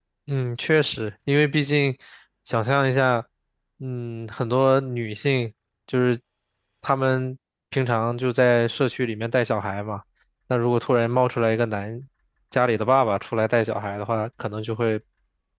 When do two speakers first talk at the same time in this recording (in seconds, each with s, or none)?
none